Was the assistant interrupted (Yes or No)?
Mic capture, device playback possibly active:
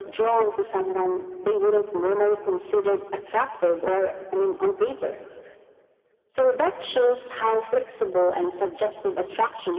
No